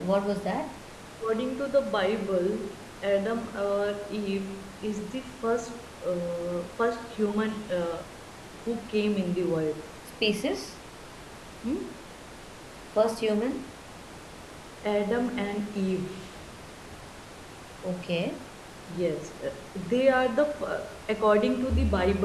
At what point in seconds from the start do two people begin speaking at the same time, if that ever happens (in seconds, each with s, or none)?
none